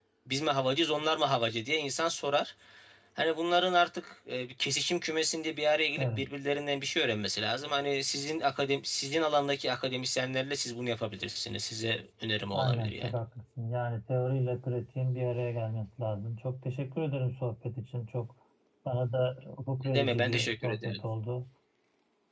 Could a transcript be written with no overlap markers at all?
No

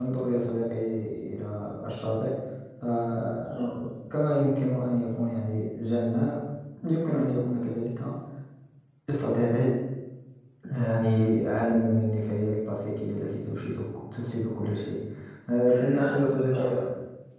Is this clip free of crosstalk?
No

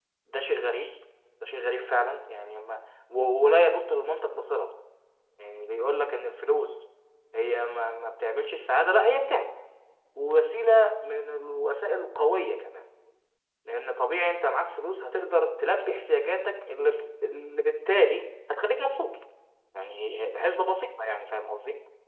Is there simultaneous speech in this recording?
No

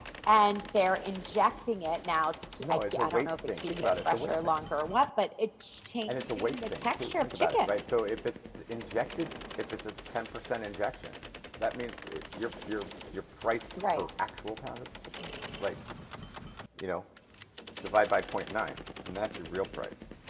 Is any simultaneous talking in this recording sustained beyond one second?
Yes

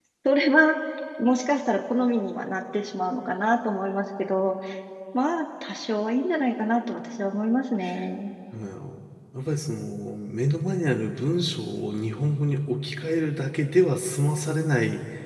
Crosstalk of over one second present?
No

